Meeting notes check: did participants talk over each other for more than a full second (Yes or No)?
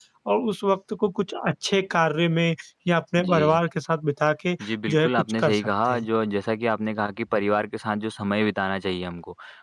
Yes